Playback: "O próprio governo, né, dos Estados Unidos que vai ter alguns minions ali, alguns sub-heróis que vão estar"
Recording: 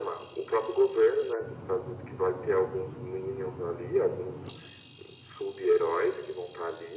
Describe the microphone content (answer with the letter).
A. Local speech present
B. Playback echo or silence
B